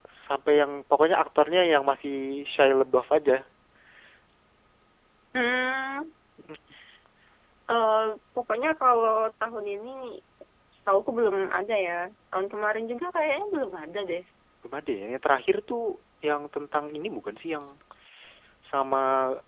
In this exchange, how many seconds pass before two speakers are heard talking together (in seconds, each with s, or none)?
none